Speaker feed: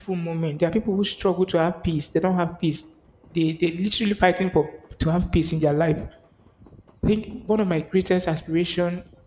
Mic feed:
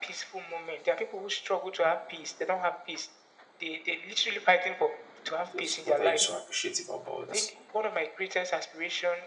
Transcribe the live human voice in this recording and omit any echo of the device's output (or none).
Just what are you so appreciative about?